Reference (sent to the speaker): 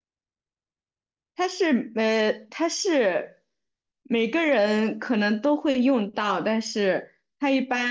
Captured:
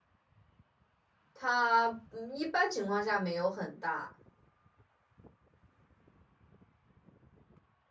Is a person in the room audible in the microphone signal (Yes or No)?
Yes